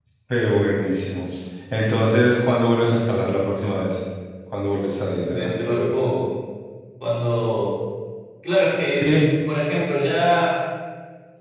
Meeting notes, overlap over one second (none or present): none